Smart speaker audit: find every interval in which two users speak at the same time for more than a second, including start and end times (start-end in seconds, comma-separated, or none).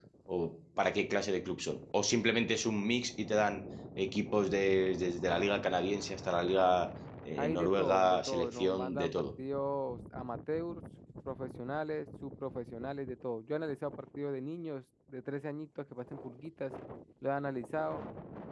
7.4-9.3